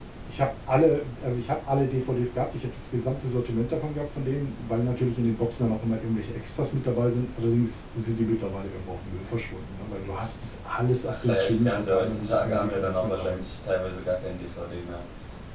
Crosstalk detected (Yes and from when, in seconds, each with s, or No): Yes, from 11.1 s